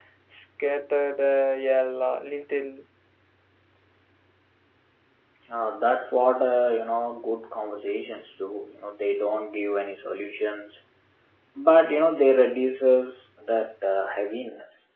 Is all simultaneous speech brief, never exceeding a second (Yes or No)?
Yes